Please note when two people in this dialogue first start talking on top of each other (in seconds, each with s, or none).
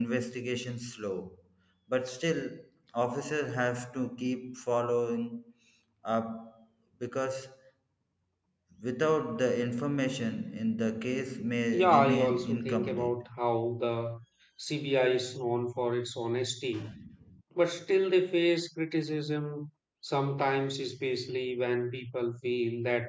11.7 s